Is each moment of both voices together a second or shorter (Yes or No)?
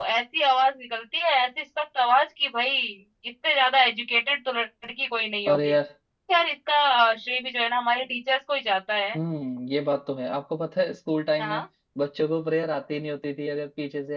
Yes